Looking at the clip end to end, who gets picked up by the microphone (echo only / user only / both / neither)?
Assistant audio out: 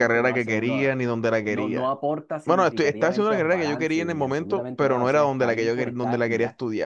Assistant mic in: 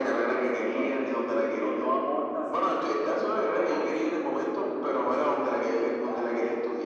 echo only